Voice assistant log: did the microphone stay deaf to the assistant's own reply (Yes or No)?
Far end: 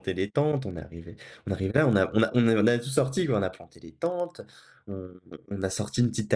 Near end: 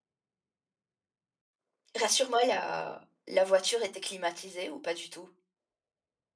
Yes